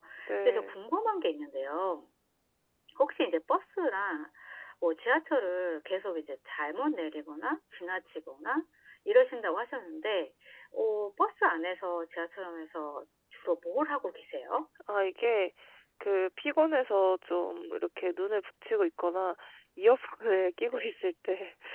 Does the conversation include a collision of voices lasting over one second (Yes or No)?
No